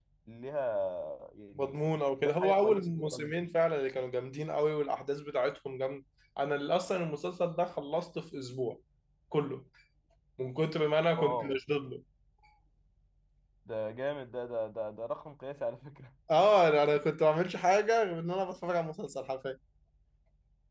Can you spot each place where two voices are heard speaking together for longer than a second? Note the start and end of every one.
2.2-3.5

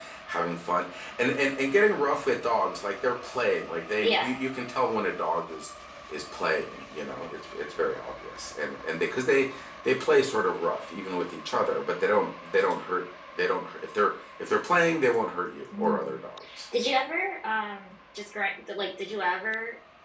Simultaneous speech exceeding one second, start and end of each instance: none

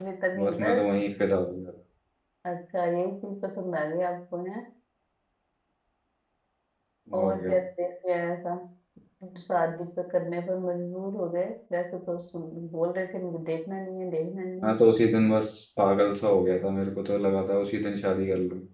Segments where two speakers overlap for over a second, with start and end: none

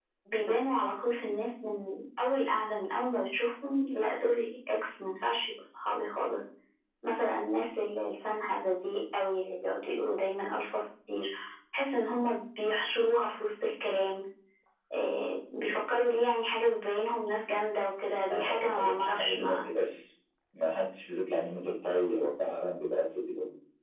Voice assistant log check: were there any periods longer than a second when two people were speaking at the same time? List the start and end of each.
18.3-19.6

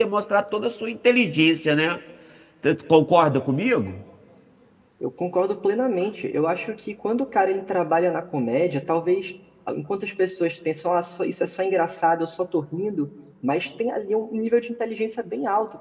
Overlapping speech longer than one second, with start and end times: none

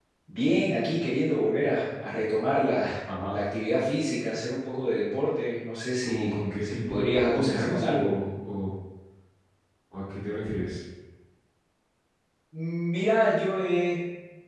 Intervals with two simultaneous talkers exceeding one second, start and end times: 6.0-8.1

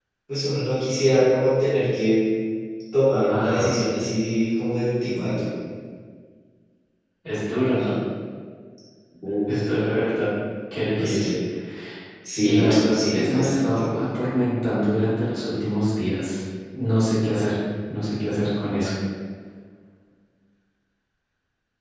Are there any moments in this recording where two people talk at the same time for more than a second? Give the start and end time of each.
12.4-13.9

